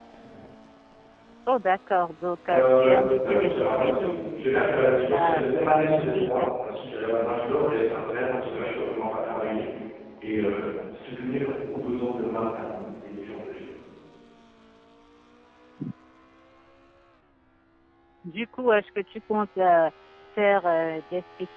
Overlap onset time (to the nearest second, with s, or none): 2 s